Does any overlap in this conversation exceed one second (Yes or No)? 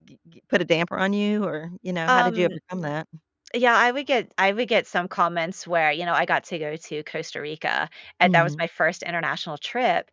No